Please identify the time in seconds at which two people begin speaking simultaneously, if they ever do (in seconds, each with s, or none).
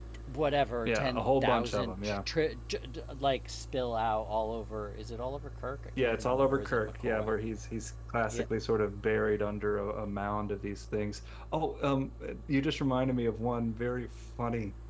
0.8 s